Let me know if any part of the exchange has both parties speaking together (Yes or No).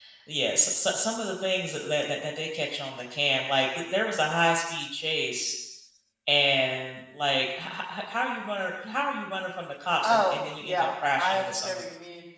Yes